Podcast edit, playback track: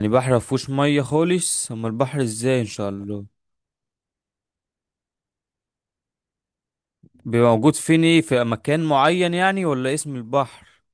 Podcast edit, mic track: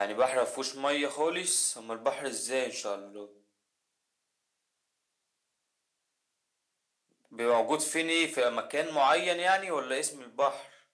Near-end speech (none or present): none